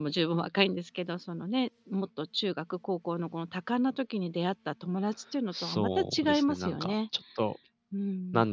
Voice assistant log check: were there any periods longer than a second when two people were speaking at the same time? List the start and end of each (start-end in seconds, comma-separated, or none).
5.6-6.9